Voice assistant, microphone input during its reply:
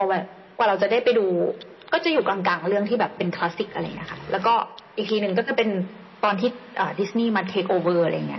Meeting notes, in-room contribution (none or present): none